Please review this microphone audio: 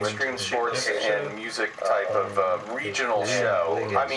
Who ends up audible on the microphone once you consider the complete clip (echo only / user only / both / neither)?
both